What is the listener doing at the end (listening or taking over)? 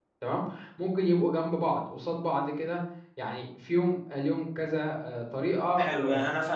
taking over